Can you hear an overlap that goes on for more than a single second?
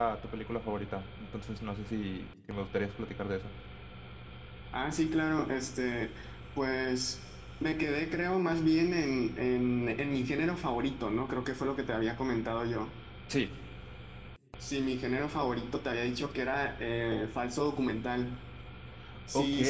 No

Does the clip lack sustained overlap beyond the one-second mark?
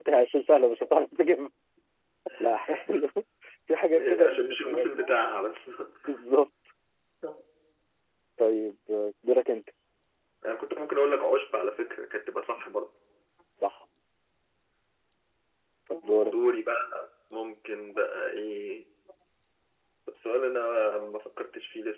No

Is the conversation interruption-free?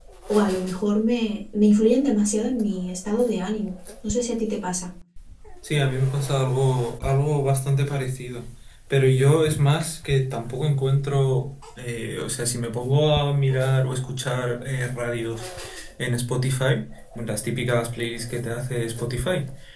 Yes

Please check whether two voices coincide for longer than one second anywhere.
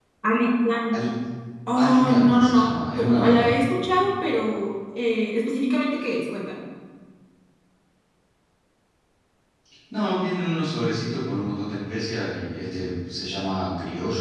Yes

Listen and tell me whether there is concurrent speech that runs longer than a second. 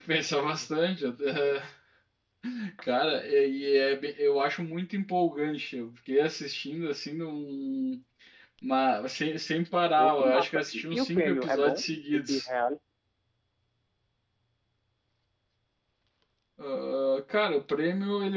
Yes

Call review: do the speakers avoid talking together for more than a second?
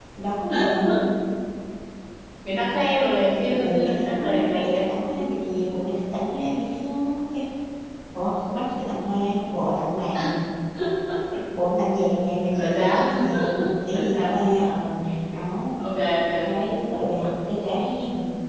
No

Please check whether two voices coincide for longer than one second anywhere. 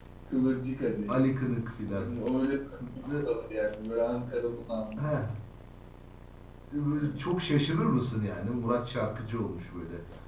No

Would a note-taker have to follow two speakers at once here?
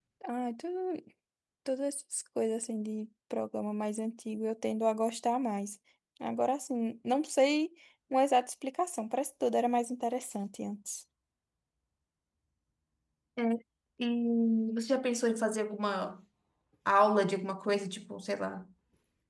No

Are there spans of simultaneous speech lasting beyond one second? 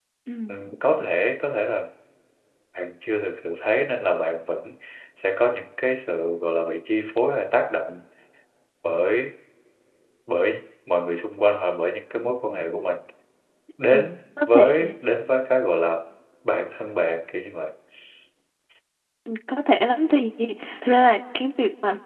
No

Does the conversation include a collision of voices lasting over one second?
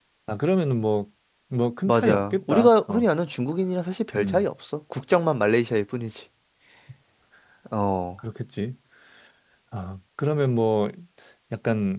Yes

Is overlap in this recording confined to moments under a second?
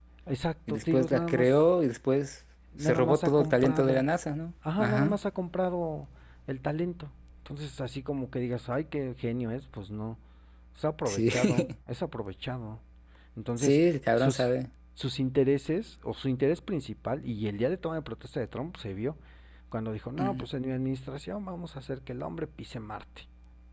No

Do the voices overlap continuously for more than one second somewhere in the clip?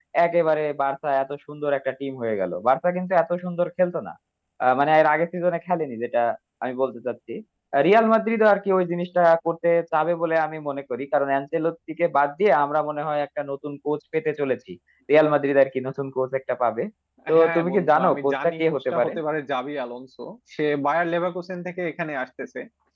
Yes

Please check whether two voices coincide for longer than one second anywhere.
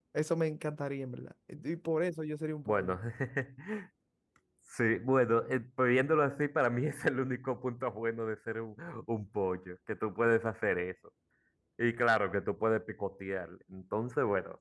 No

